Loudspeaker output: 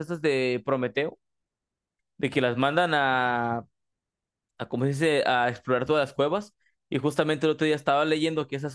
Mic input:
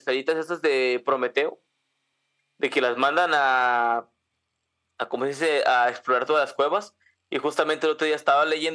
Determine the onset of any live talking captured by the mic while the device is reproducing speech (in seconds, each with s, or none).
none